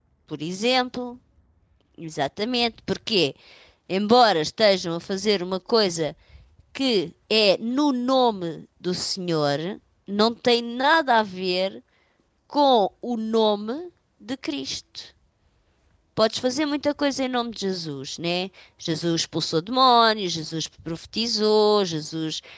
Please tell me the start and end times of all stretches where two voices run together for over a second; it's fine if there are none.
none

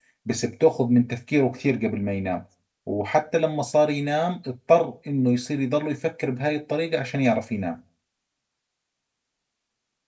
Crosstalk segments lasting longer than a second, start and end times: none

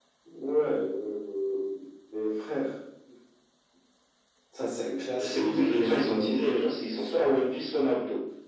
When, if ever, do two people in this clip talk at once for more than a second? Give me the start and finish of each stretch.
5.2-6.4

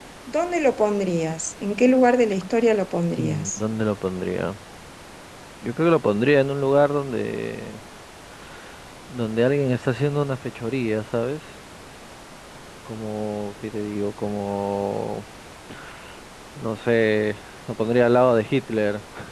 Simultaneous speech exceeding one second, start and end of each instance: none

